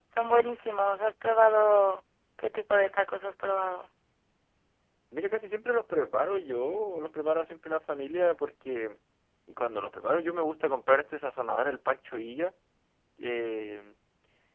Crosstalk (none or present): none